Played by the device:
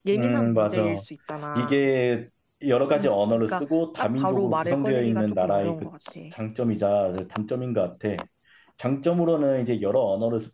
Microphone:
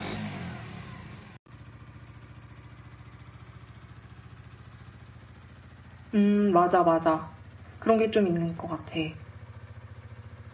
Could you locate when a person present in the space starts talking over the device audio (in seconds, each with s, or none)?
6.1 s